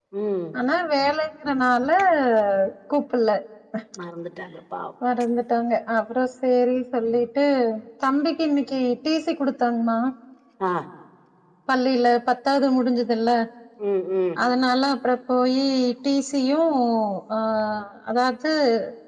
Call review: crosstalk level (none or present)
none